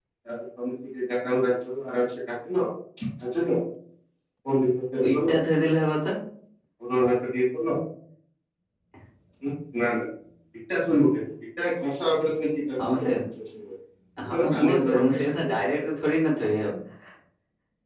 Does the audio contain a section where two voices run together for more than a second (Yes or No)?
Yes